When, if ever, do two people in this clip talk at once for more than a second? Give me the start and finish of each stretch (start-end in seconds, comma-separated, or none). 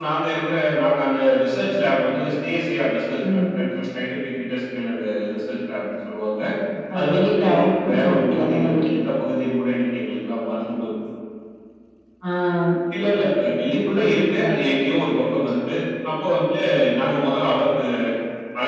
7.0-8.9